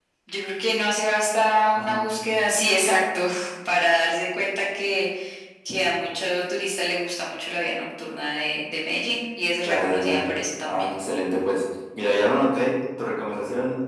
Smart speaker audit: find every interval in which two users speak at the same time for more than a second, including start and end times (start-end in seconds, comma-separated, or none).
9.7-11.0